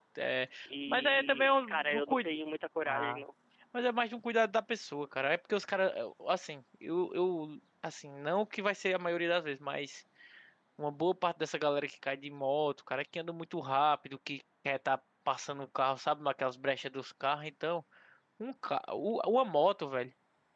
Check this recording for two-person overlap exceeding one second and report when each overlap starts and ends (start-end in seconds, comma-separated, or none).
0.9-2.3